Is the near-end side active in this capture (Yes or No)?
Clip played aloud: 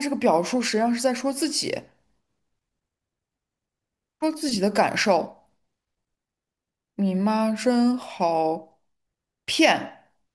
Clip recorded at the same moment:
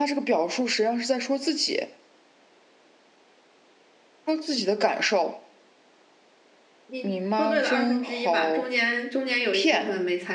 Yes